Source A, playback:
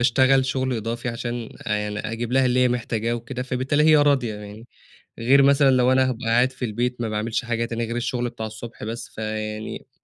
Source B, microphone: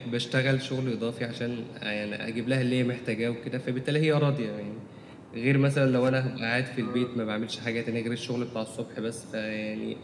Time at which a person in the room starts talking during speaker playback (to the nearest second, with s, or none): 7 s